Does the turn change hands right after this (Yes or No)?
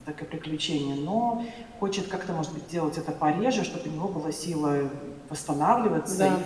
No